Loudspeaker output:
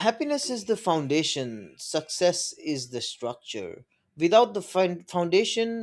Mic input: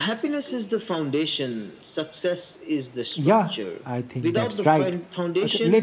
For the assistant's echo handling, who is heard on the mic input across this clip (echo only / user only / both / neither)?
both